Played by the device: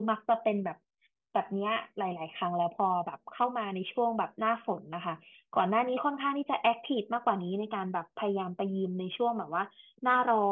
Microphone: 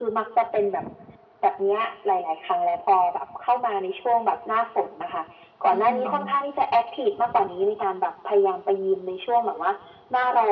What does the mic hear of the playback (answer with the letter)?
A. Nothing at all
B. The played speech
B